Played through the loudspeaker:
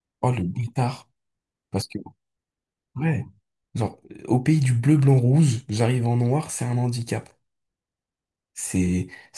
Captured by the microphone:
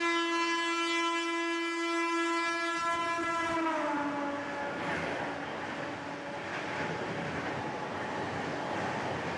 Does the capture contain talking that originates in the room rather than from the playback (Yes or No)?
No